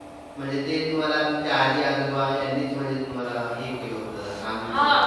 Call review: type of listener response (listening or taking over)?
taking over